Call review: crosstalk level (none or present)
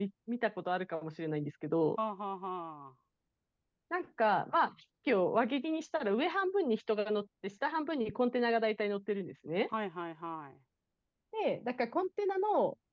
none